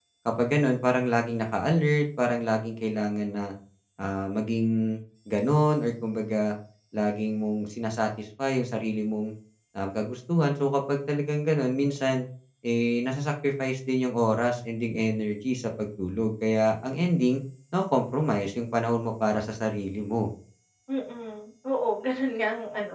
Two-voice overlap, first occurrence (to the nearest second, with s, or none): none